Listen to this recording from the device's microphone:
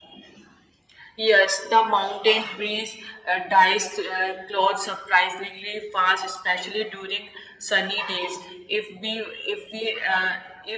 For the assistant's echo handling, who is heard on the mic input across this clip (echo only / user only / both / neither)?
echo only